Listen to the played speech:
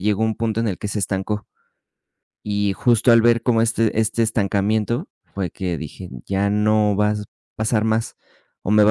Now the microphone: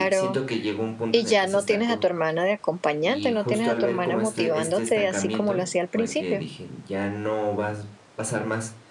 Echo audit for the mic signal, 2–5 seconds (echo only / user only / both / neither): both